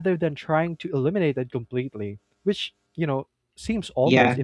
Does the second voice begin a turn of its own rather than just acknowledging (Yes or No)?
Yes